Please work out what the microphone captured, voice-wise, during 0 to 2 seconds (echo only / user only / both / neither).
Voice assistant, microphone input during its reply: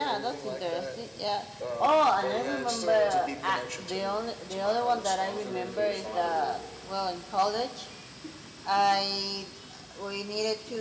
both